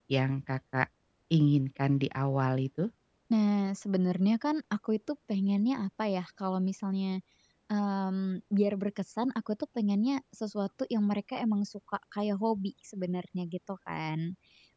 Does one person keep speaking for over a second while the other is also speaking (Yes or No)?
No